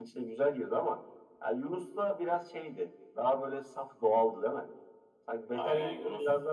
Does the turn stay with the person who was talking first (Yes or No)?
Yes